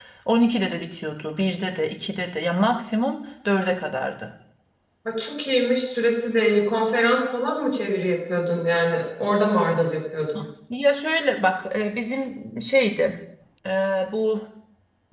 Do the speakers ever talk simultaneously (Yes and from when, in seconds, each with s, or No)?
No